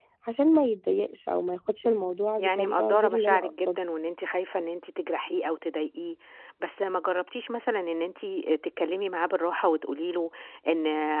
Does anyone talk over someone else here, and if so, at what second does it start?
2 s

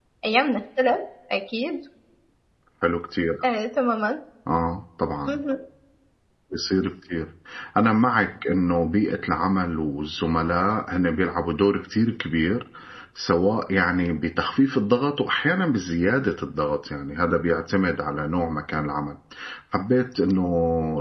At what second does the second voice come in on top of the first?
none

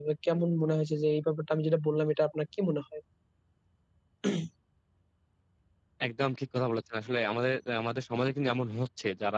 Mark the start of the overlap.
none

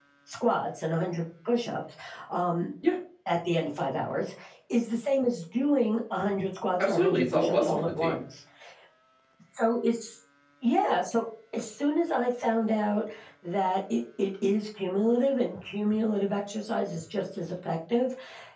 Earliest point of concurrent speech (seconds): 7 s

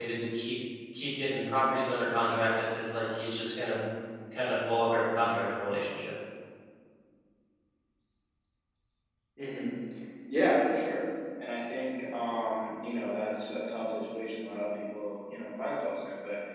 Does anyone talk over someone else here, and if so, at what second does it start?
none

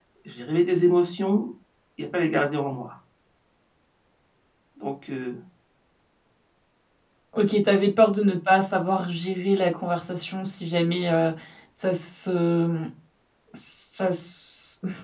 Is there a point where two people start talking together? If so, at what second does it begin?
none

